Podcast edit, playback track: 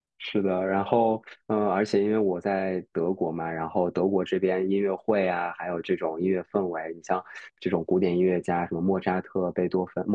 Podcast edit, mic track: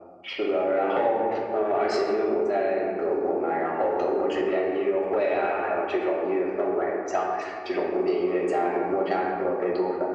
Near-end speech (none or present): none